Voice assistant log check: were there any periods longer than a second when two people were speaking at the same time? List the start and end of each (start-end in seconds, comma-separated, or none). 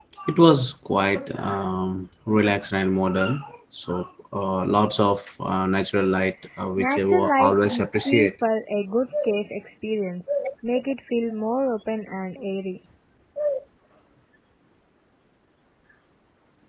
6.8-8.3